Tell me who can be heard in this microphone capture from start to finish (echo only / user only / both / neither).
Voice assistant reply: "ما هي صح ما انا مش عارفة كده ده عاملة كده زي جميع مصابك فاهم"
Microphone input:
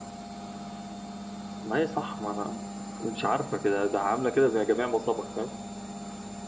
echo only